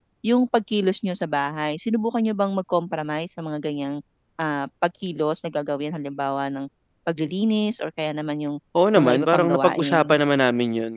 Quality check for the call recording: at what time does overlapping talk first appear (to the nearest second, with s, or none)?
9 s